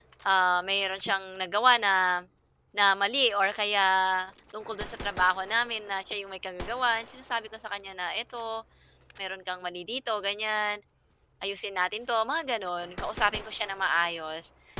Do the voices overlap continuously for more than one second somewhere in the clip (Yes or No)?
No